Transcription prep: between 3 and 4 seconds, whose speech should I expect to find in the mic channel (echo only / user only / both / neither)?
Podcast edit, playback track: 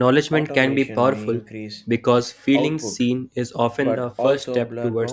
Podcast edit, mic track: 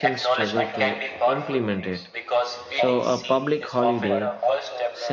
both